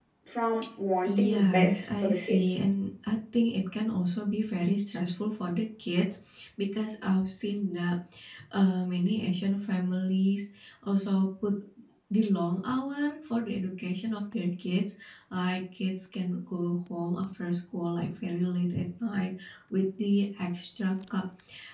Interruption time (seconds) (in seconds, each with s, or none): 1.0 s